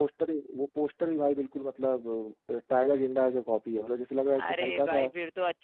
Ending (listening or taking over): taking over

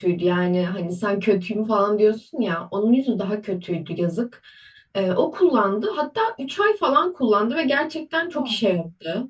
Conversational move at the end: listening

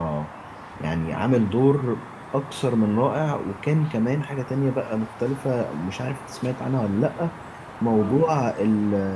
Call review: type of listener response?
listening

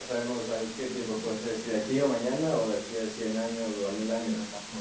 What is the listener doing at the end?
taking over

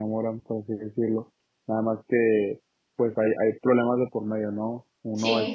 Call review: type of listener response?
listening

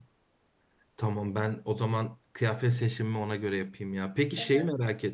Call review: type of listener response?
listening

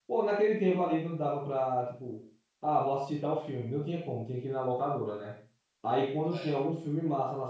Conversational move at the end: listening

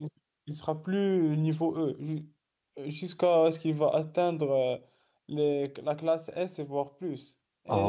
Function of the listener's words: listening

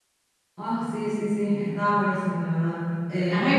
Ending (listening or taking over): listening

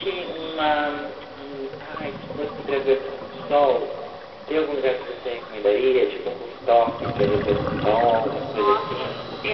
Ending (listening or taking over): taking over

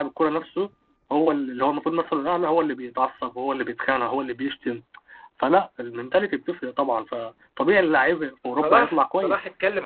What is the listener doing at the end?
taking over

